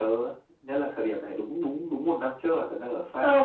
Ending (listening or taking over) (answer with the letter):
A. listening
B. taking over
B